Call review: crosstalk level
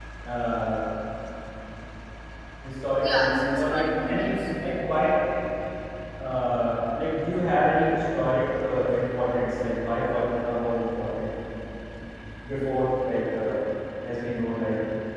present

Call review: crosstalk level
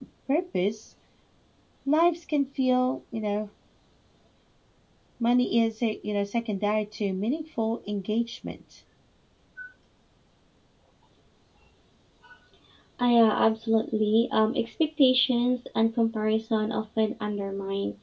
none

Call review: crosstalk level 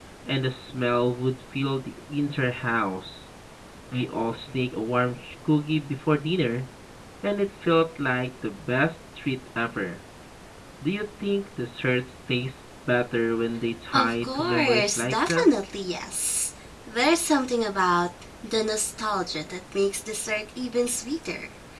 present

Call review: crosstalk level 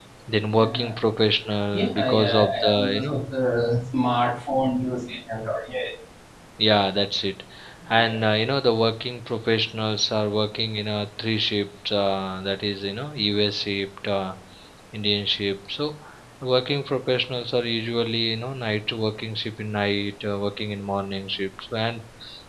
present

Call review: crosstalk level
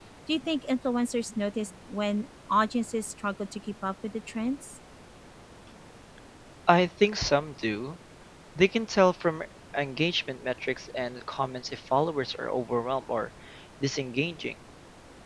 none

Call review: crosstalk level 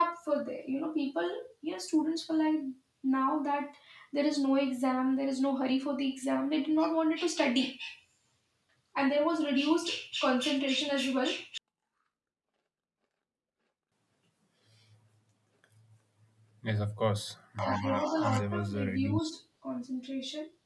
present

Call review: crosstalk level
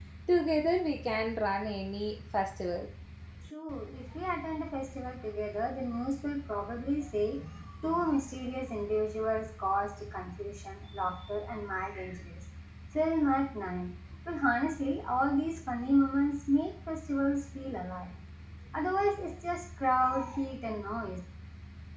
none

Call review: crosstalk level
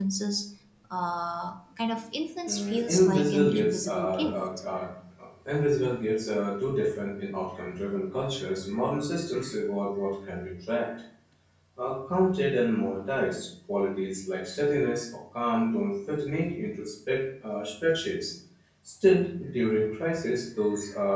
present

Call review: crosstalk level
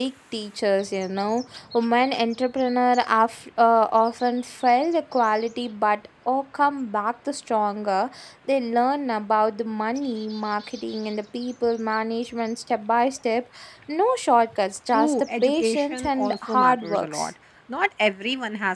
present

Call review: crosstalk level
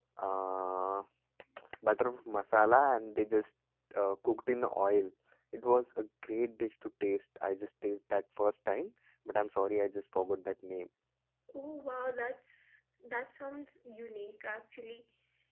none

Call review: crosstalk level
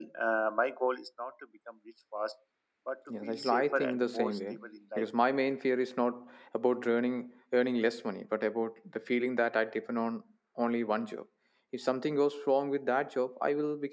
present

